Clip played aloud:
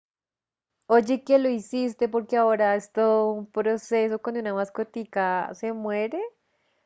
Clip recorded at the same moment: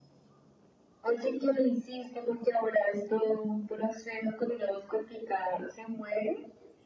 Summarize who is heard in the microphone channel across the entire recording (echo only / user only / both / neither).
echo only